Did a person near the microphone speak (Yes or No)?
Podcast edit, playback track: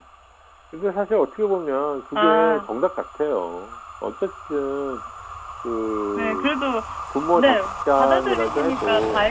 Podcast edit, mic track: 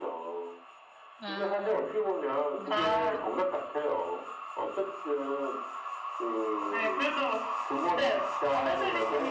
Yes